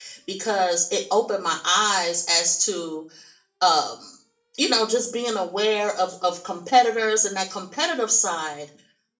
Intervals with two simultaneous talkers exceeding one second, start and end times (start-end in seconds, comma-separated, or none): none